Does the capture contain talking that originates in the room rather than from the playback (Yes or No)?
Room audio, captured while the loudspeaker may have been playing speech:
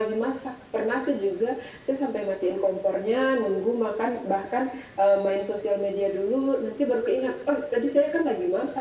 No